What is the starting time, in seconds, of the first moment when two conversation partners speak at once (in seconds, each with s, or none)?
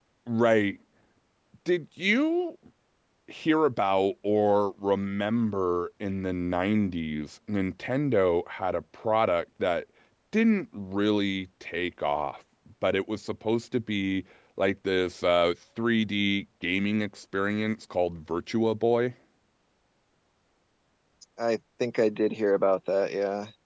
none